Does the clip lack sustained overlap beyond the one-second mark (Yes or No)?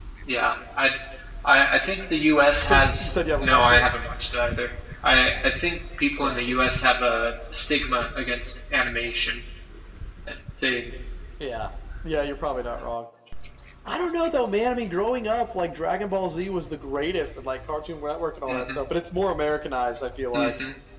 No